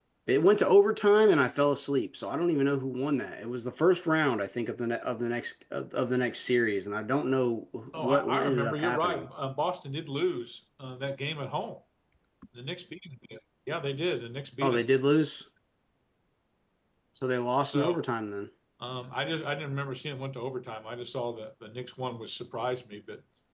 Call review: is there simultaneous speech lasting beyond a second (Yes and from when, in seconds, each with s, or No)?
Yes, from 8.0 s